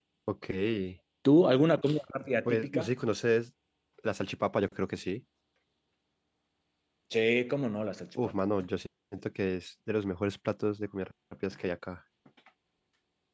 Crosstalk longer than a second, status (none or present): none